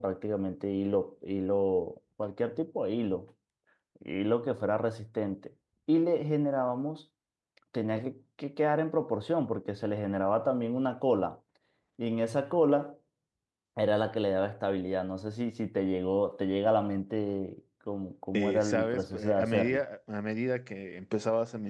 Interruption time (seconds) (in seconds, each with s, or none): 18.3 s